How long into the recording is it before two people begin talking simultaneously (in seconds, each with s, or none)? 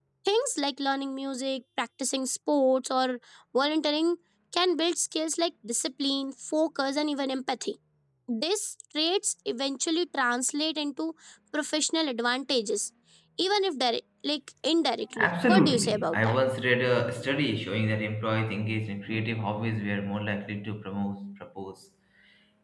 15.1 s